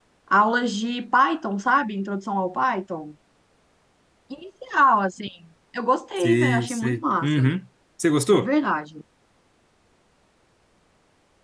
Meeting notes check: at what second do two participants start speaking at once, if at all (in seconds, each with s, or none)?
6.2 s